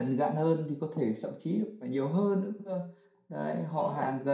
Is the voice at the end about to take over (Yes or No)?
No